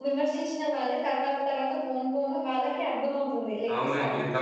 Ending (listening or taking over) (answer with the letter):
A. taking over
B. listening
A